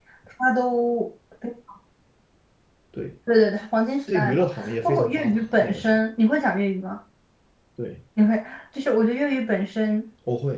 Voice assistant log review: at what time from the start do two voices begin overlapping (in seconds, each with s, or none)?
4.1 s